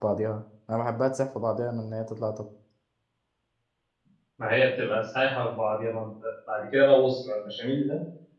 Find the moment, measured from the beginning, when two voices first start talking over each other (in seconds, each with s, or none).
none